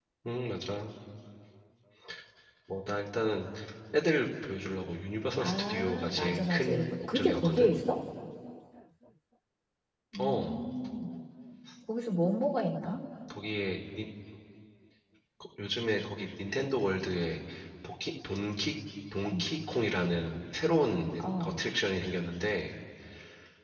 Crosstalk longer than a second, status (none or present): present